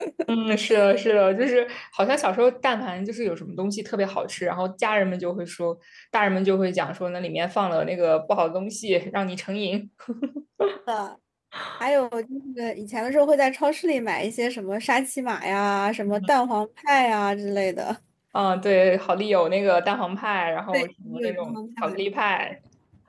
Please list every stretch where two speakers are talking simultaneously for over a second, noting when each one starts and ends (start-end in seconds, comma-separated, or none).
20.7-22.0